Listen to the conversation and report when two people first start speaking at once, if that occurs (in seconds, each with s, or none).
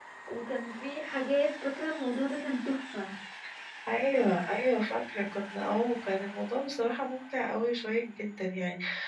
none